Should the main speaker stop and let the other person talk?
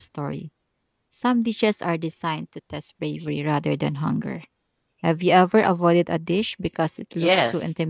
Yes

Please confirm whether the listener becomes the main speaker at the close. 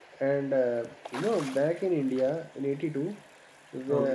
No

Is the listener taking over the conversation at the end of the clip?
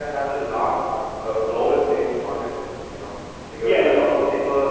No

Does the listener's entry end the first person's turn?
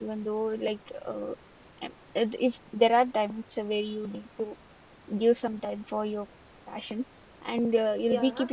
No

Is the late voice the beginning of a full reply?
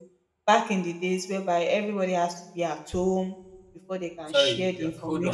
Yes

